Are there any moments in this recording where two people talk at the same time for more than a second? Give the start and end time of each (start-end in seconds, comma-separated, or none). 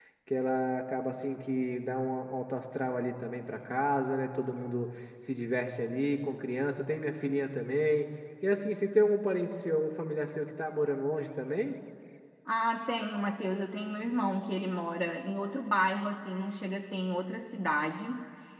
none